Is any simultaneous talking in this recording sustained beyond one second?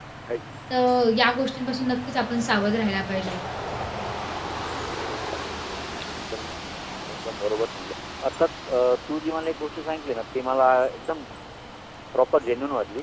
No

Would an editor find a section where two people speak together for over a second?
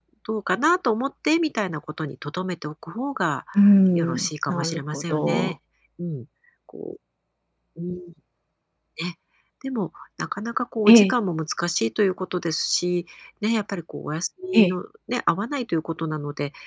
Yes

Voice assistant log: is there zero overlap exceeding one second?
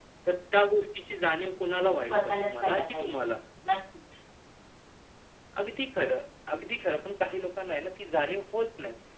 No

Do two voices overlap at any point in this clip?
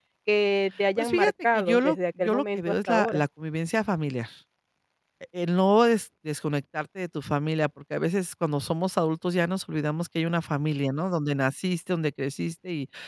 Yes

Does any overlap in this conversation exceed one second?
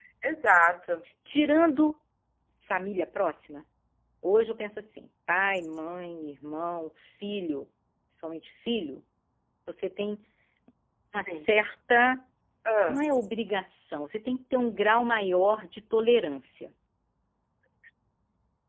No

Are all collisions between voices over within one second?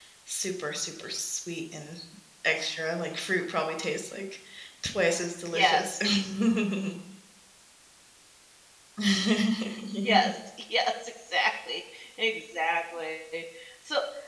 Yes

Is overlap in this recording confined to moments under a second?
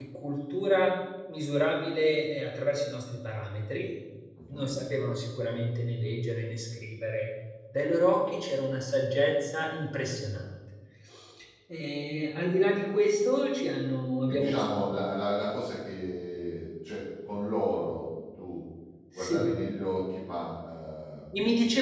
Yes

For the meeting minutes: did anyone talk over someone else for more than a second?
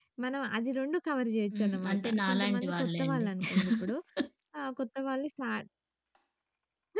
Yes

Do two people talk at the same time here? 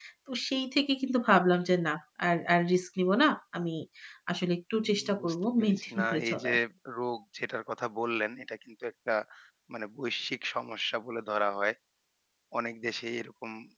Yes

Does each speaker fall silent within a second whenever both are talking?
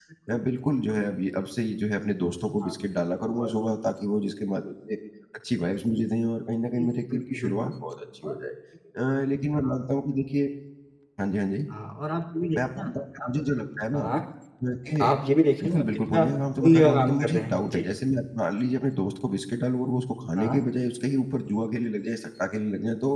No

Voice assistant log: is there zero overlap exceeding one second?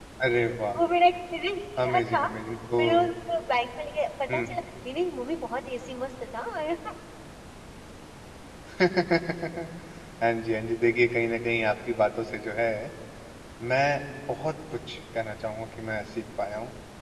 Yes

